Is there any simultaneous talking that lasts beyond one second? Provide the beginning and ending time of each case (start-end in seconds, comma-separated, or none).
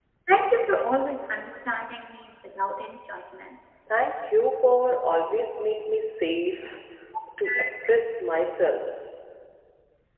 none